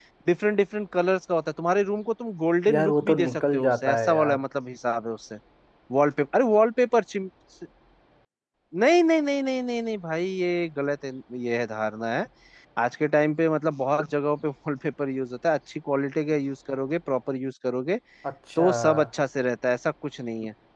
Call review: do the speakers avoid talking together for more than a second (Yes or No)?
No